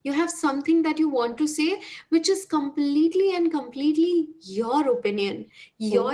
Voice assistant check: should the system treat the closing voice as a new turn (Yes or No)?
No